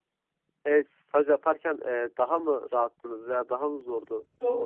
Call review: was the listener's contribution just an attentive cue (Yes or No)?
No